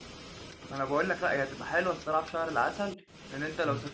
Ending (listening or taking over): taking over